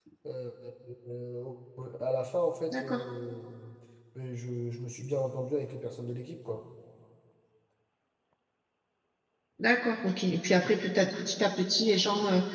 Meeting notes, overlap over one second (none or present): none